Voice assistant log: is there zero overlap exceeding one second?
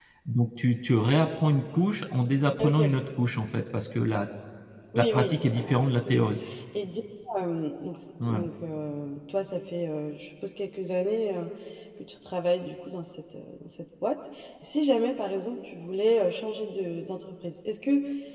No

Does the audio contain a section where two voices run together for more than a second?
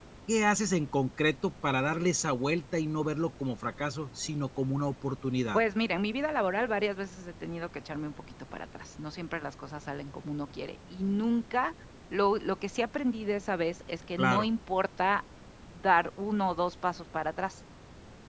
No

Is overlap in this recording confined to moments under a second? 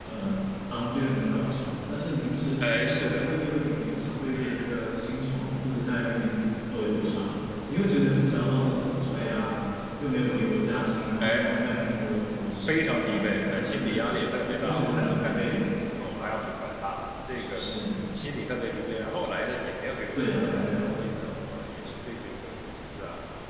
No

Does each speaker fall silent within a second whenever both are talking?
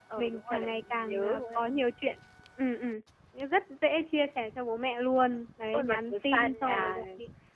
No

